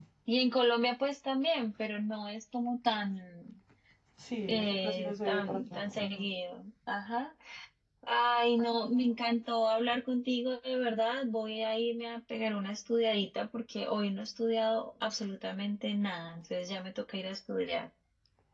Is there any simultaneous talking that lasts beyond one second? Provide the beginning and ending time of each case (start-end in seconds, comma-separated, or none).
4.5-6.3